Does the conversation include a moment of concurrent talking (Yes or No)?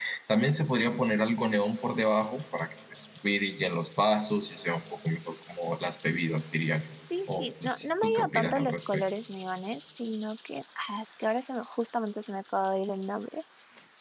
Yes